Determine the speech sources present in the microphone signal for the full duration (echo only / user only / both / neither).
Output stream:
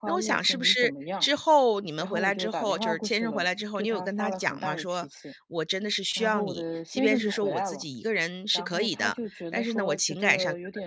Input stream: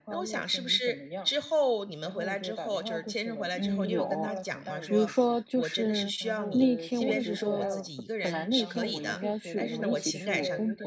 both